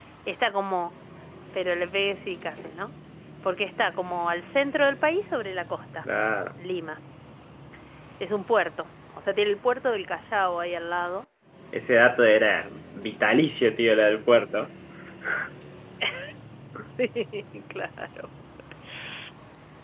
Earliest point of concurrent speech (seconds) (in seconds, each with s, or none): none